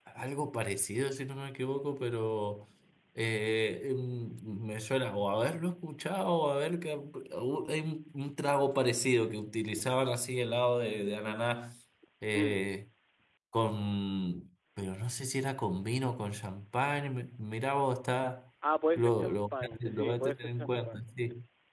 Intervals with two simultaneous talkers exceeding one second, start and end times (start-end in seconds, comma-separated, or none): 19.0-21.1